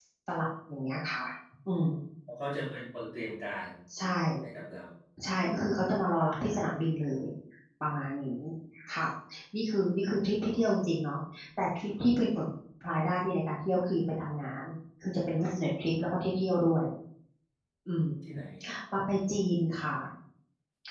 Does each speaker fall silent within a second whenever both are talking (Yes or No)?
Yes